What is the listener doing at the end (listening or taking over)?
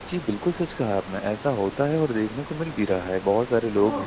listening